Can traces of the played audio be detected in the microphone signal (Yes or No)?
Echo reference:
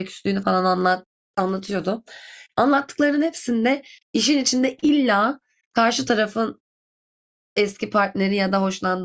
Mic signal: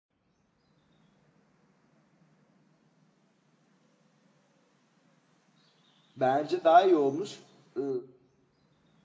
No